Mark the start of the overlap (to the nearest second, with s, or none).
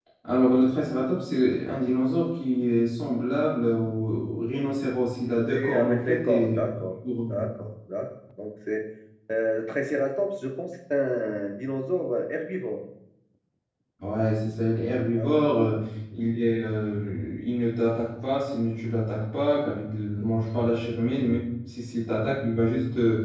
5 s